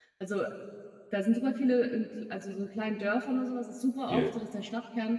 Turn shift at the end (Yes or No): No